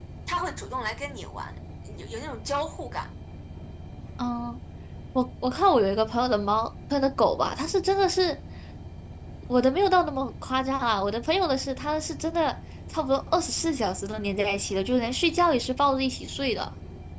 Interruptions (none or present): none